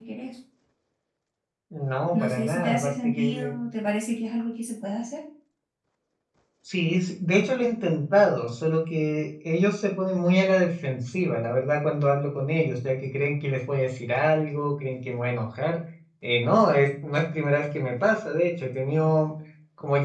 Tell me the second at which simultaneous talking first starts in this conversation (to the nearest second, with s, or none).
2 s